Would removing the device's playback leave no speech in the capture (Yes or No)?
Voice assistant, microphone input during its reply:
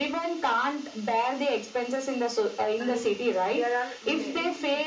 No